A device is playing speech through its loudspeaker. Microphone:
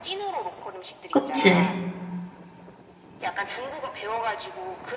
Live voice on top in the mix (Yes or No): Yes